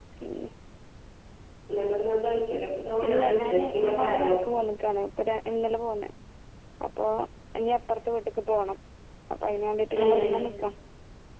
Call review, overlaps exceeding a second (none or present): present